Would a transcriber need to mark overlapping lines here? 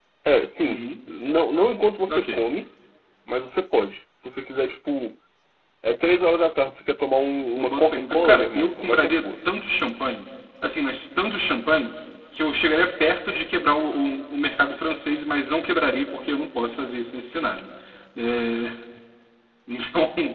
Yes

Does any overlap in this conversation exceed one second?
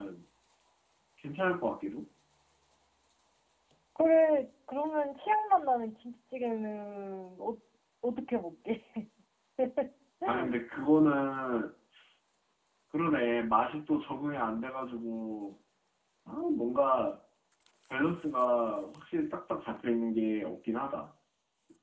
No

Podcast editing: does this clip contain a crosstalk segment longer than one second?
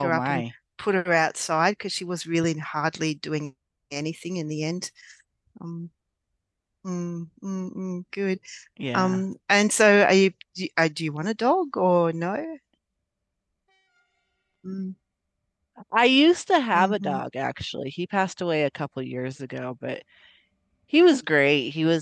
No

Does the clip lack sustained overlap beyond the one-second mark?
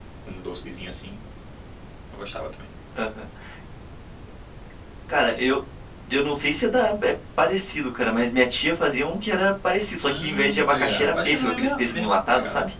No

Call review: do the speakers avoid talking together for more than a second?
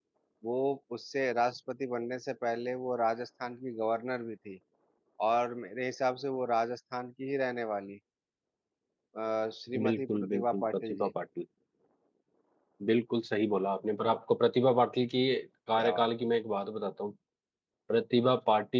No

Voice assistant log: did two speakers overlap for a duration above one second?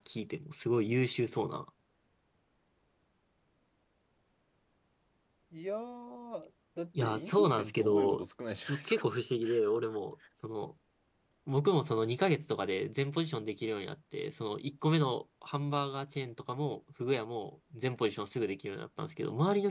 Yes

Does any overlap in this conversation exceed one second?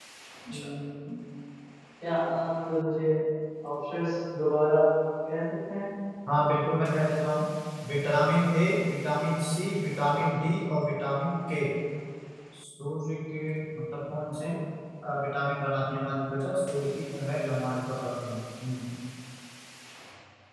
No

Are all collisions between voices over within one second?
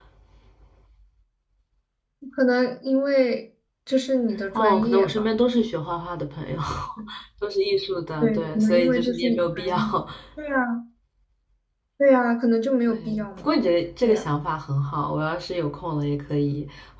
No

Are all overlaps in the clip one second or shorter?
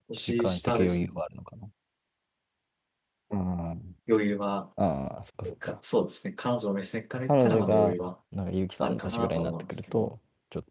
No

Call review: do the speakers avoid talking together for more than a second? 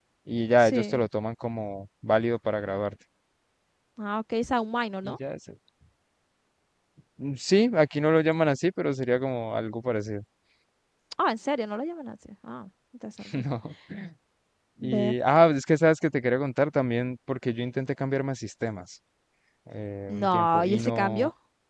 No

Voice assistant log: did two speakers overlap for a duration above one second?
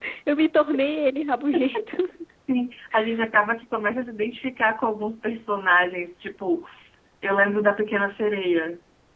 No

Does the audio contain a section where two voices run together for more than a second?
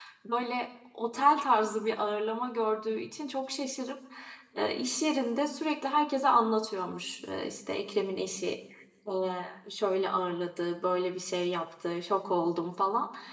No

